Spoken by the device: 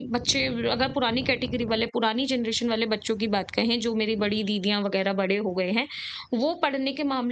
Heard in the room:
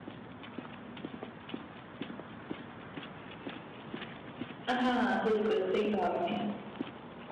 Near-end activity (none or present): present